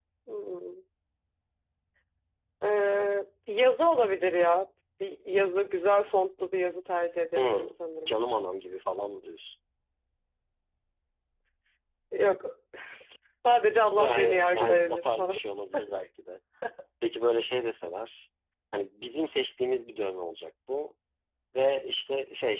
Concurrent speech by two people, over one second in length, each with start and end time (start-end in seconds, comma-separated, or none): 14.0-15.4